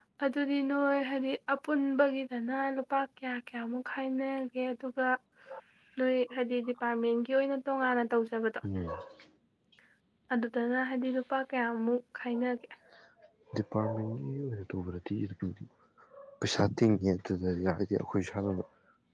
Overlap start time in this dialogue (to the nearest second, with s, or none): none